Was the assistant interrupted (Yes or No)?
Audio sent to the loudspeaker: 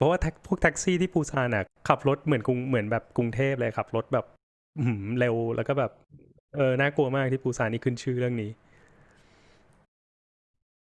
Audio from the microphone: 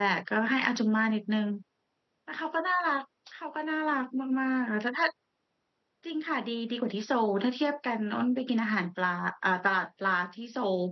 Yes